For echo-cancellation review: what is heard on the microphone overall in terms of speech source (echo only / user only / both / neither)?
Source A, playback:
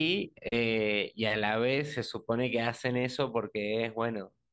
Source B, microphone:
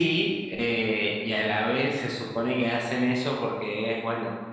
echo only